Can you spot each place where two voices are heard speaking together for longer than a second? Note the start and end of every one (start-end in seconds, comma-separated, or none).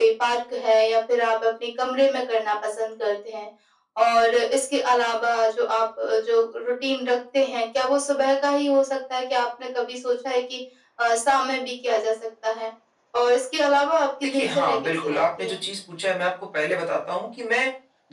14.2-15.6